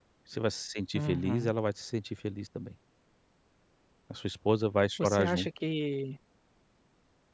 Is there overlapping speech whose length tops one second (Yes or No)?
No